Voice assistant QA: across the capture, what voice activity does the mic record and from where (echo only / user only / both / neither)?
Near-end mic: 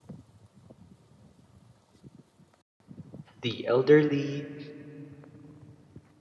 user only